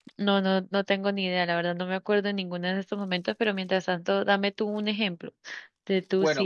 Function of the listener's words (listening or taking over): listening